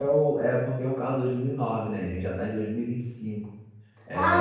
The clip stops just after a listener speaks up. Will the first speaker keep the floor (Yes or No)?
No